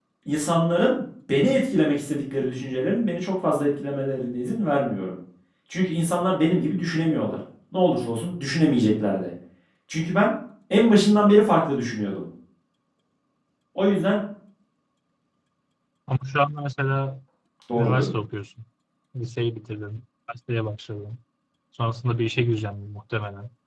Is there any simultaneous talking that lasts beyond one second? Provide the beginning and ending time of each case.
none

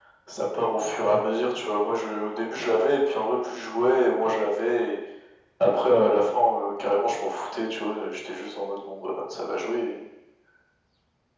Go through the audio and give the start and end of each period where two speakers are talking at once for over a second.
none

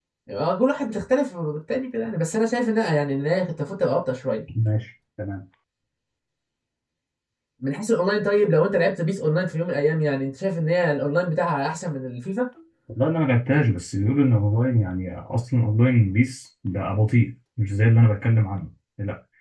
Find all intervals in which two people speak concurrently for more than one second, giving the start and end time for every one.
none

